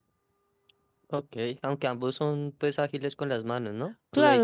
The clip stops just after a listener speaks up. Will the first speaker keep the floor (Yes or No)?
No